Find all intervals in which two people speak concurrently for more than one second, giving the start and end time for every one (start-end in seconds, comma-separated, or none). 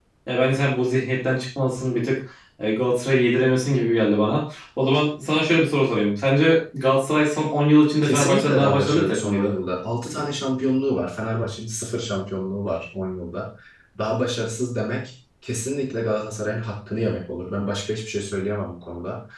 8.0-9.5